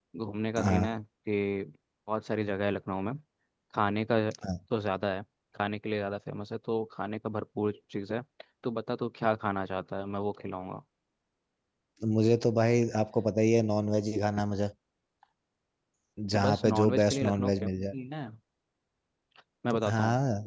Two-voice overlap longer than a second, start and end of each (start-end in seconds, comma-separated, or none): 16.3-17.9